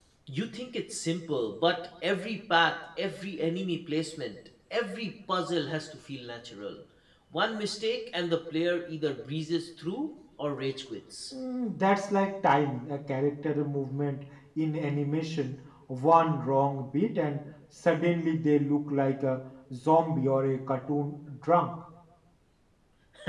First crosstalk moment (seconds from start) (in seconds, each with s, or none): none